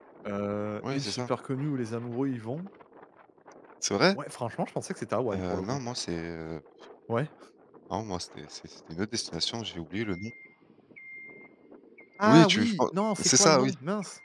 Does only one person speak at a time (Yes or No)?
No